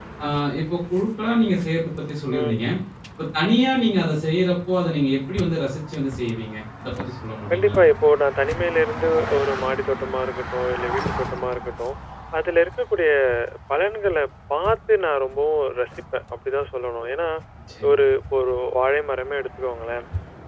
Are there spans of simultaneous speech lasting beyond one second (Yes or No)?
No